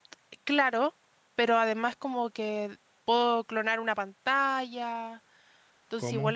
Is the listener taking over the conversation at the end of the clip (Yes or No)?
No